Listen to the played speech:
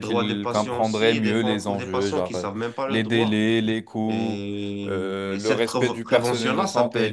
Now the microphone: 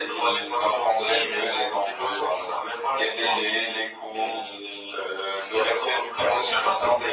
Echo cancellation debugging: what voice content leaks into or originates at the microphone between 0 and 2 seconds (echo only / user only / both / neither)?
echo only